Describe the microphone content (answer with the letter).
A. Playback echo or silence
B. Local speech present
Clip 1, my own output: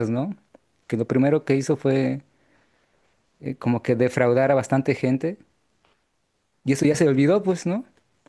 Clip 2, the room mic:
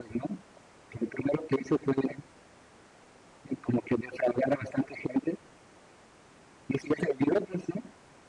A